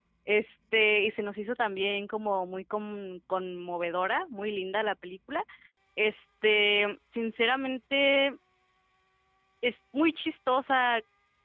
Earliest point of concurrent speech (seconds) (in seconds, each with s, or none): none